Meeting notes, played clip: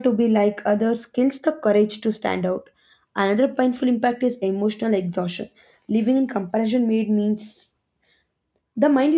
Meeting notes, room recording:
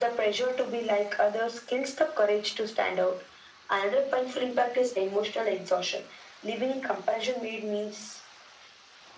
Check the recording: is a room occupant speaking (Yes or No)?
No